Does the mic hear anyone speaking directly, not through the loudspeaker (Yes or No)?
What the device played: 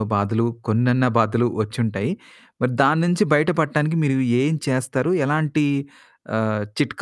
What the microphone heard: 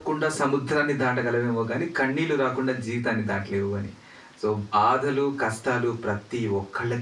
Yes